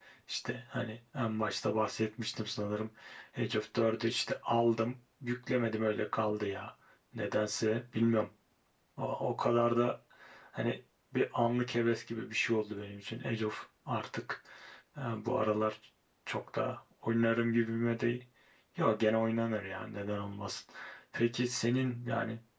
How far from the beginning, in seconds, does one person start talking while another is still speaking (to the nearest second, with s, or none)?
none